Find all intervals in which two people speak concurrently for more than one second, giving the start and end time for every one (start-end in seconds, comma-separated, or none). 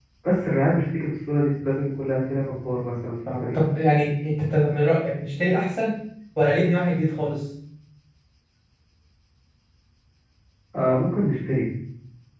none